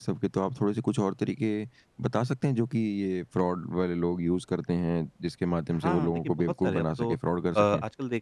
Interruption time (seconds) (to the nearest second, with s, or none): 6 s